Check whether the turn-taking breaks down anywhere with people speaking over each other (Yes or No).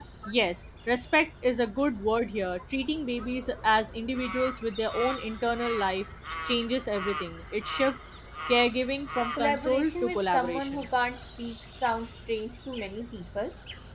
Yes